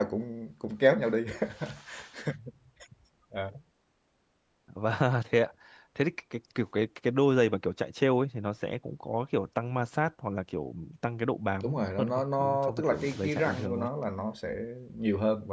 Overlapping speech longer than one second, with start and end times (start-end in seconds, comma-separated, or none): 11.6-13.9